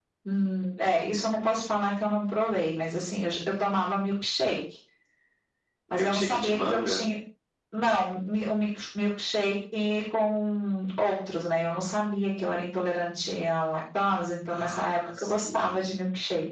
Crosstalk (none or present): present